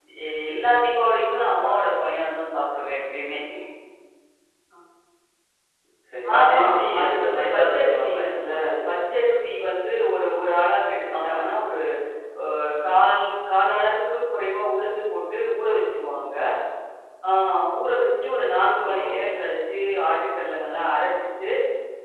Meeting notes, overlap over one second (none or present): present